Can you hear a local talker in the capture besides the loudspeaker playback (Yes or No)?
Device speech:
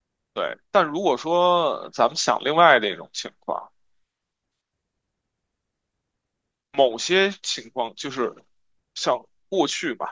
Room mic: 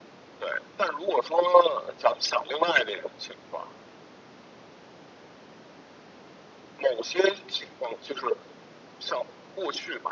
No